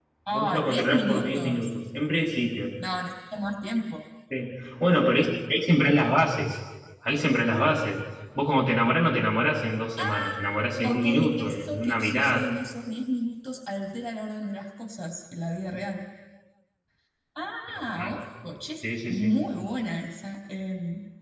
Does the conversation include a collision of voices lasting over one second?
Yes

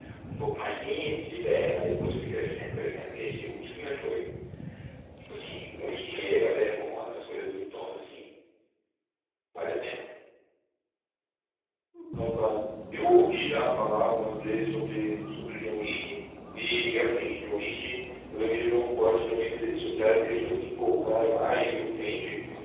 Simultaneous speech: No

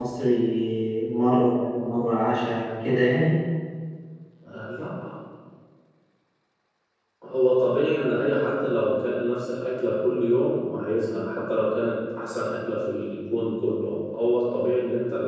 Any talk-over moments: No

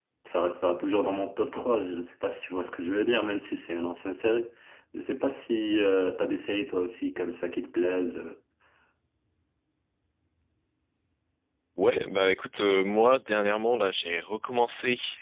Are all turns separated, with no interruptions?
Yes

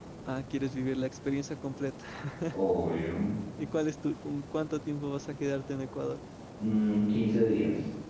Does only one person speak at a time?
Yes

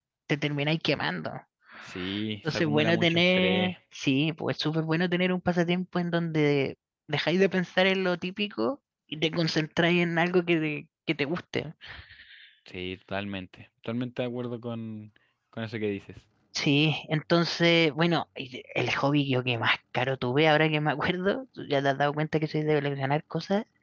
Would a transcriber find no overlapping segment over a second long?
No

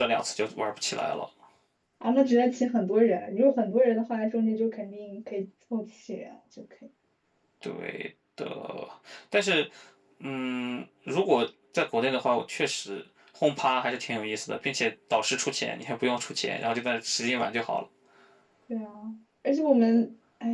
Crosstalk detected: No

